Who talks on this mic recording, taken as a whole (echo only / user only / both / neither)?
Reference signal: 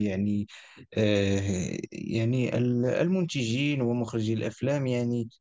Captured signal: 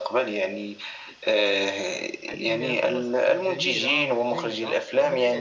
both